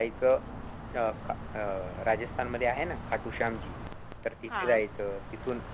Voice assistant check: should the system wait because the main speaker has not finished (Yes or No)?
Yes